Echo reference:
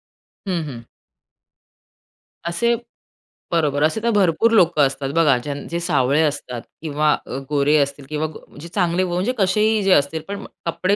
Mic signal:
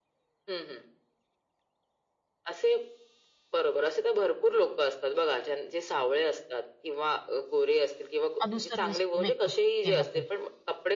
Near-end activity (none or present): present